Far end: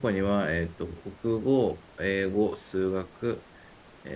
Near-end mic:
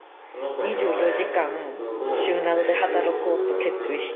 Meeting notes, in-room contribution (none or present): present